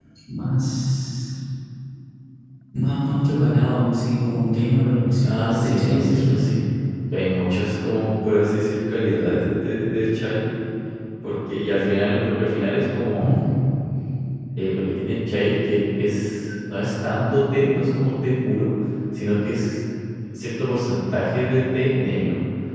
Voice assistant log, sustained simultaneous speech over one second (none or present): present